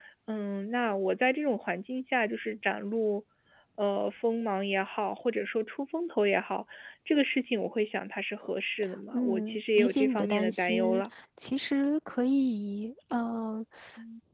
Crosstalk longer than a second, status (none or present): present